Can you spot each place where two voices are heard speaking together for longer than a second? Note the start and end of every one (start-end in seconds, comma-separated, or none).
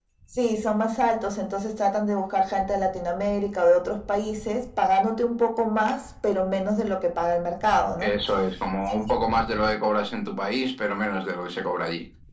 none